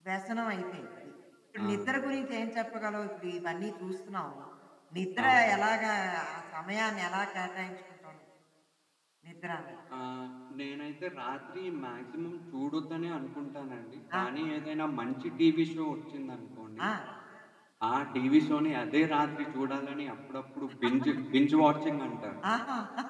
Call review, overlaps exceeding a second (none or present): none